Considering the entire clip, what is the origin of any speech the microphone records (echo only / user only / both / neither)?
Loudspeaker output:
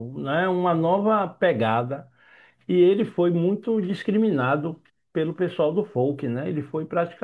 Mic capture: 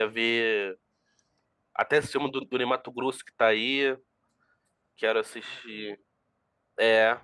user only